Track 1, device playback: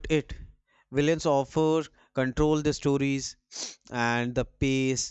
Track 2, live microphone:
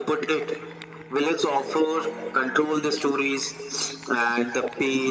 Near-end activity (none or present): none